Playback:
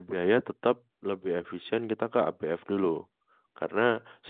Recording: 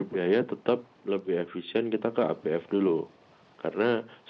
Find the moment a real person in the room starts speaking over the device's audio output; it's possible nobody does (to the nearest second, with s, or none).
none